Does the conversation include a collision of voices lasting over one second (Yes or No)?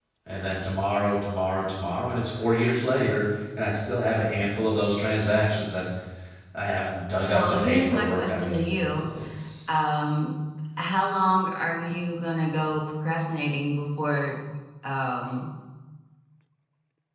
Yes